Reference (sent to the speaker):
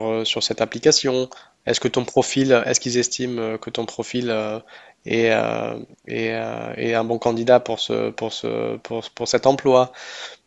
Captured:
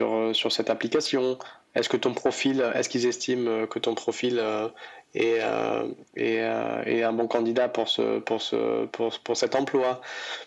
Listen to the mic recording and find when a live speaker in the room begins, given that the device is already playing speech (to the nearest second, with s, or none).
none